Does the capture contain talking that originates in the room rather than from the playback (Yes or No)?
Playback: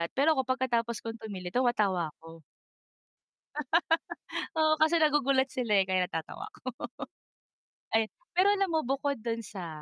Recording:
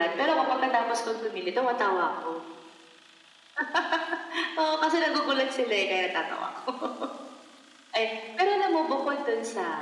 No